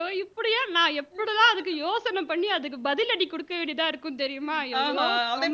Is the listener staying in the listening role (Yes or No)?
No